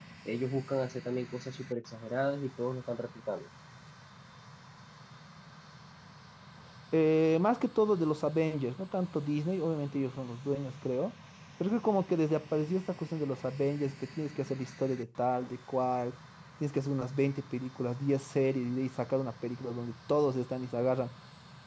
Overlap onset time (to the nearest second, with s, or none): none